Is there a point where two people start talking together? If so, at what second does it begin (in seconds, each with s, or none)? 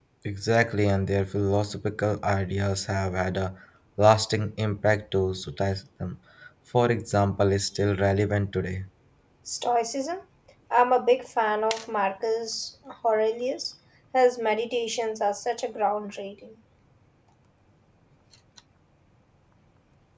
none